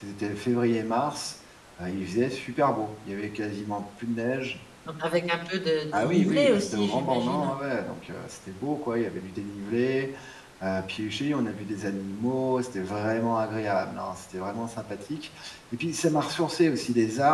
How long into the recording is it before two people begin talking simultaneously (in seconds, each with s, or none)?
5.9 s